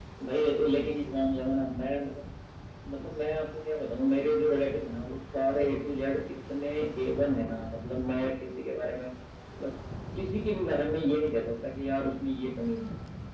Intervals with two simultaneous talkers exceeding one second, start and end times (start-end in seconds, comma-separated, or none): none